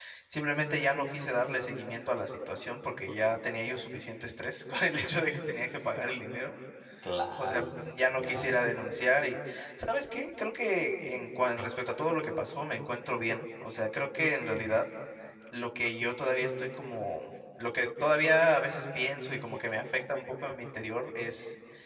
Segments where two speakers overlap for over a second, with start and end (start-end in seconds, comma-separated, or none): 7.4-8.8